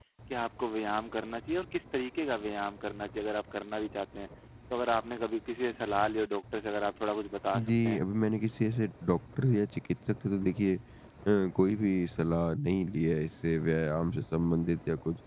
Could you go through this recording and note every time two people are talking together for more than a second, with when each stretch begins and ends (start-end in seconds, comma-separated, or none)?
none